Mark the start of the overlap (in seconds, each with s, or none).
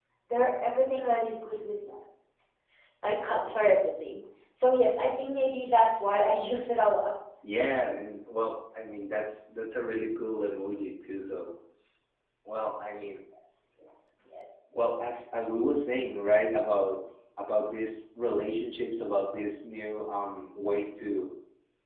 none